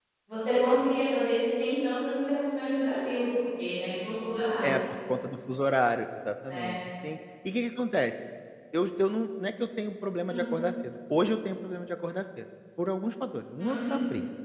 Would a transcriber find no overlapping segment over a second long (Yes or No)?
Yes